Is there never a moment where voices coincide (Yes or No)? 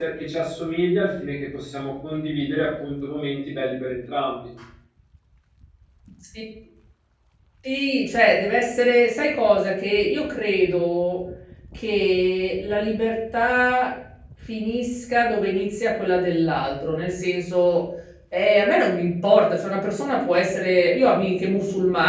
Yes